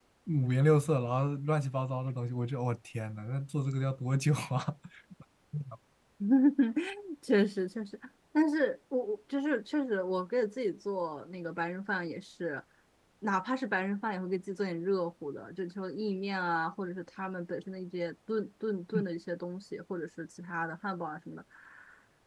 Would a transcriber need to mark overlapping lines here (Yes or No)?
No